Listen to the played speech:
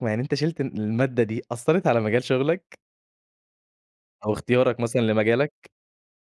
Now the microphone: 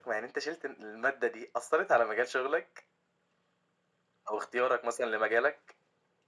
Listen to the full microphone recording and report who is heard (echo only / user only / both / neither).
echo only